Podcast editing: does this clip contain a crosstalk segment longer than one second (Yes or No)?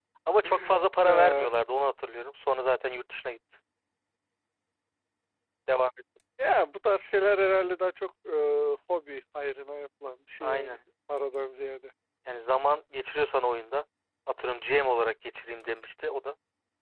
No